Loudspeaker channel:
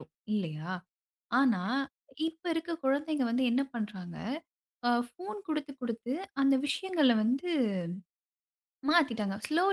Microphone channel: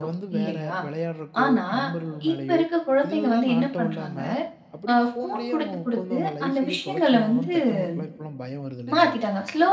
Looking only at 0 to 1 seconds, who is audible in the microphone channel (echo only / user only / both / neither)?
both